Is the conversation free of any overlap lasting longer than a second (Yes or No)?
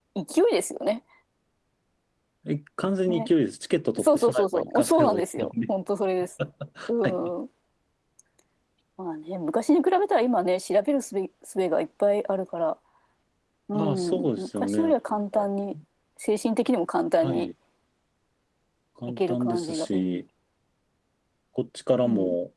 No